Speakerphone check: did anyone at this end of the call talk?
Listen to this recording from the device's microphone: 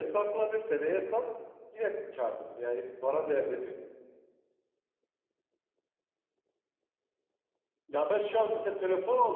No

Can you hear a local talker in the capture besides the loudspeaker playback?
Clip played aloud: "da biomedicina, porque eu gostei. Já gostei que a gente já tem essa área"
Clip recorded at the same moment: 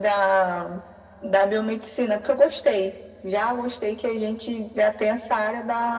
No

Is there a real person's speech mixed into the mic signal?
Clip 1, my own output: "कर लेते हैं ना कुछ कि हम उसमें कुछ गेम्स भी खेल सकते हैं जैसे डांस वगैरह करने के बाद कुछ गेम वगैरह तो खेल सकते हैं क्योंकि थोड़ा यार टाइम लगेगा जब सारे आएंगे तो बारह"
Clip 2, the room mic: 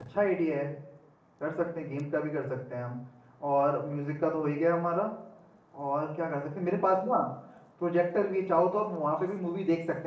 Yes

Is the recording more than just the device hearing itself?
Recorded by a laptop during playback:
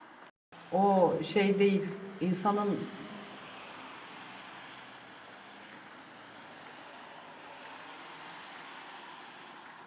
Yes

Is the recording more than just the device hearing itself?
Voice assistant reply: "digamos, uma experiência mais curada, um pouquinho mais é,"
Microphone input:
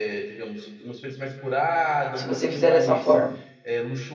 Yes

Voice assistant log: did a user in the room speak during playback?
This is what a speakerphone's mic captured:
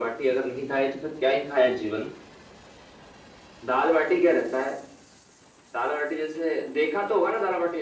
Yes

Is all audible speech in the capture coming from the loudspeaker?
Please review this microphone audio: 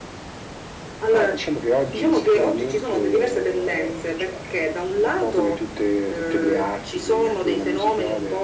No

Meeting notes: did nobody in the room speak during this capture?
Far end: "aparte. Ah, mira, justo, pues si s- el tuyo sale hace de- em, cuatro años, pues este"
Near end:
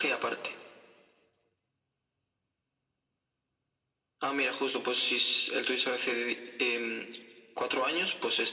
Yes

